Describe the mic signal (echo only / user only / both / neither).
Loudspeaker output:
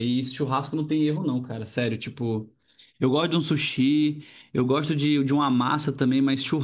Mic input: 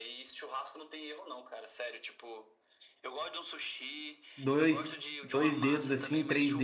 both